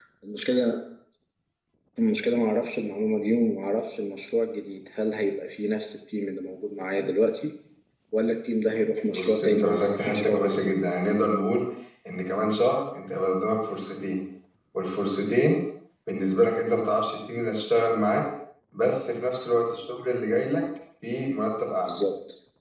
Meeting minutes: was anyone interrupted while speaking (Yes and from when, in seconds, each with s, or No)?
Yes, from 9.1 s